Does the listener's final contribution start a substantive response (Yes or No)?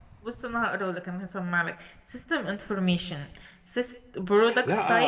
Yes